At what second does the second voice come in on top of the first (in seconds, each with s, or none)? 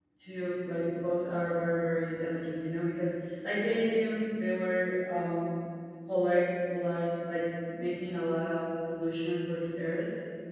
none